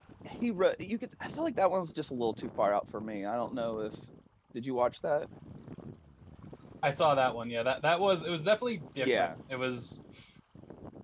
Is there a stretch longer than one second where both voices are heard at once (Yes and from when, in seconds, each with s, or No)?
No